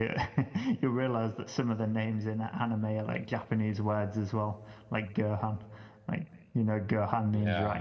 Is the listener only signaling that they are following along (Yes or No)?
No